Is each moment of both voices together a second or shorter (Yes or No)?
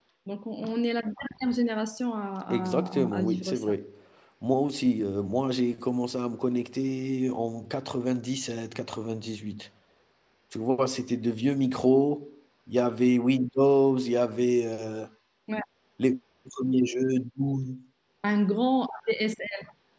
No